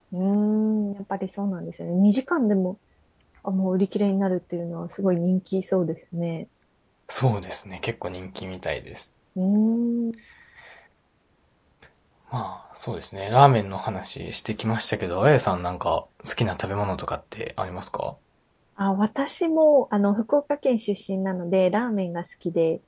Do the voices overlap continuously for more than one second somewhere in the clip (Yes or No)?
No